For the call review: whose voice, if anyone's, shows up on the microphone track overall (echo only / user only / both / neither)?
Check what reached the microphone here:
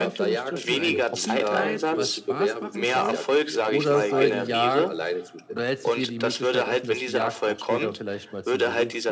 both